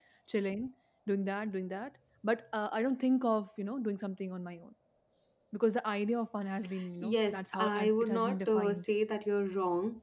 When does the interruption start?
7.0 s

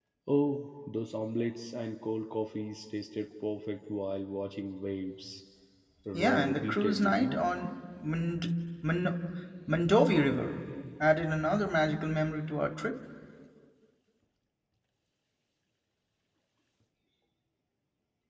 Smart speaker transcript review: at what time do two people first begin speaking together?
6.1 s

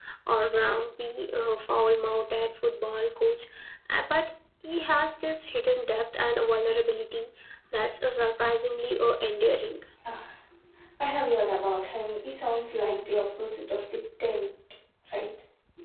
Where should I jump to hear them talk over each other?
none

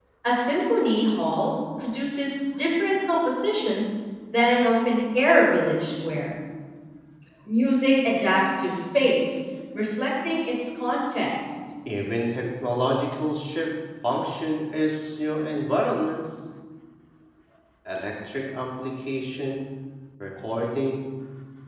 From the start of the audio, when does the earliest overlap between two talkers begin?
none

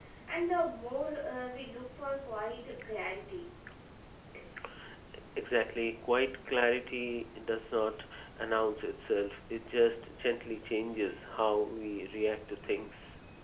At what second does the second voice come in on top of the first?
none

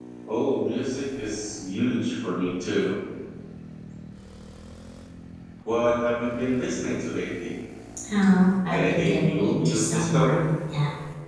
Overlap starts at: 8.7 s

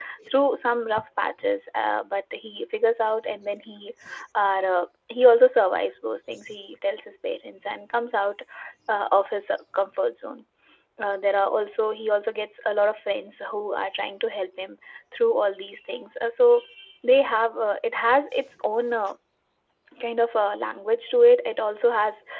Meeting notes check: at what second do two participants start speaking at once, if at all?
none

